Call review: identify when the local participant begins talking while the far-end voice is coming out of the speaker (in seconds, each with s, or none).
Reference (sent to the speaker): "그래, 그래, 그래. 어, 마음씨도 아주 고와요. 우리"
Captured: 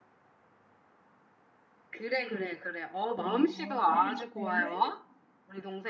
3.1 s